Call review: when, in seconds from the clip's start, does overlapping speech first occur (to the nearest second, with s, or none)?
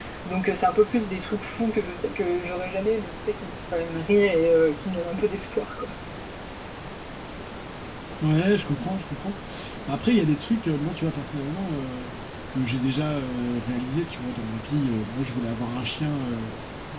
none